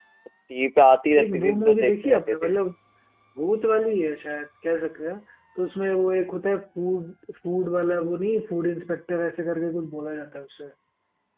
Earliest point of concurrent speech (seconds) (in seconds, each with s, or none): 1.2 s